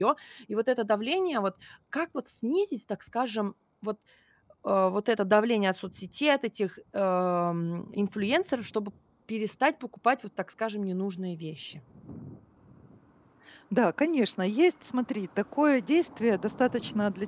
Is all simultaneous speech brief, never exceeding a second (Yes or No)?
Yes